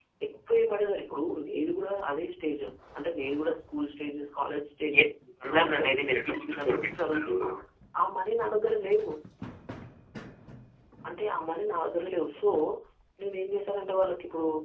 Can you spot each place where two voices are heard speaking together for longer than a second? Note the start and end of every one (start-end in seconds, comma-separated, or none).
5.7-7.3